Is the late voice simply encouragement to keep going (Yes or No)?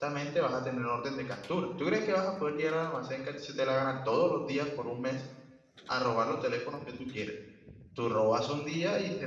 Yes